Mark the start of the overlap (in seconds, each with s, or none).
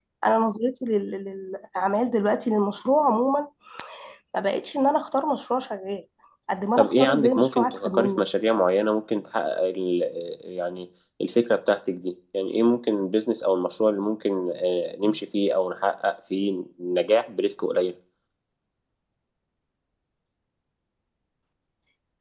6.8 s